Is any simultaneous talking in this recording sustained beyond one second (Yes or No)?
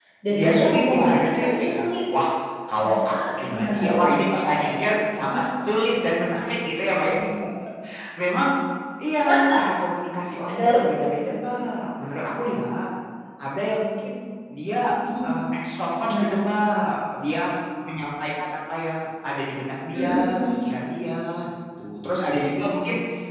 Yes